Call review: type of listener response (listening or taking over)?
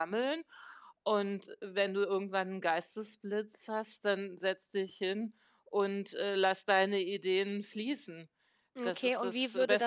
taking over